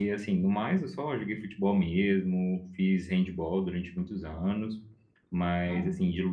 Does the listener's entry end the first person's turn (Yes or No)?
No